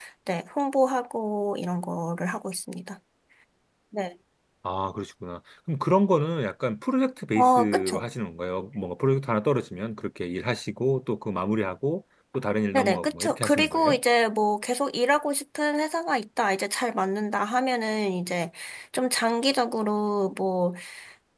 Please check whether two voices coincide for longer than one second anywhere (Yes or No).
Yes